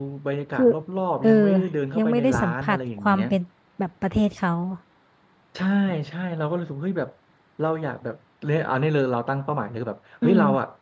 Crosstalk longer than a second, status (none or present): present